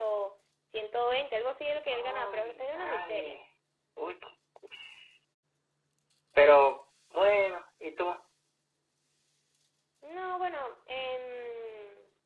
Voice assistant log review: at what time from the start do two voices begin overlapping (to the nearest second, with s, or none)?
2 s